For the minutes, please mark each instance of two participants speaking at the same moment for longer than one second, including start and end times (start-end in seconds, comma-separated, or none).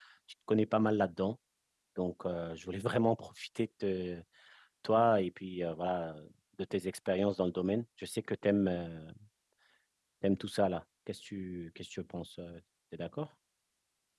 none